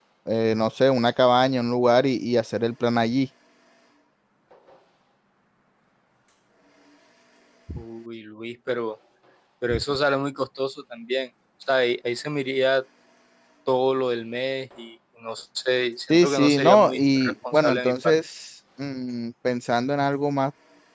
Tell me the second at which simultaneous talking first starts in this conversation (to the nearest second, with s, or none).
16 s